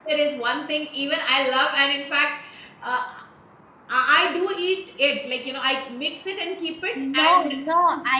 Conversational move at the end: taking over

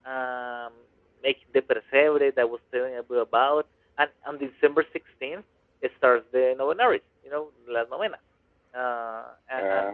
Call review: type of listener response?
listening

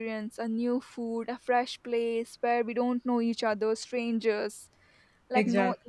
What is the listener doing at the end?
listening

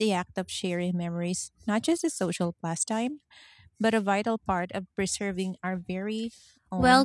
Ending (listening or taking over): taking over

